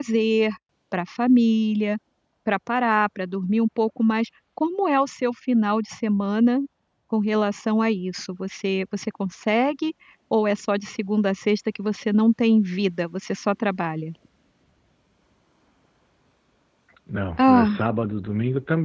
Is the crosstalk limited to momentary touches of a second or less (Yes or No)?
Yes